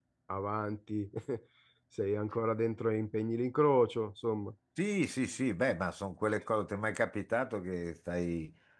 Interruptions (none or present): none